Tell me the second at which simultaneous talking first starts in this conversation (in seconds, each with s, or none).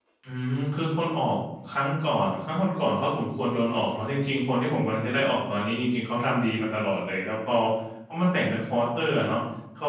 none